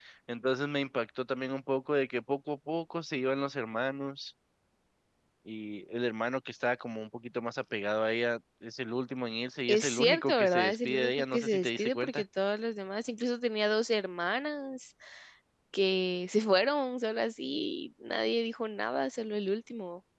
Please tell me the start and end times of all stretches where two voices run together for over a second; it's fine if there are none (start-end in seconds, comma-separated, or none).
9.7-12.2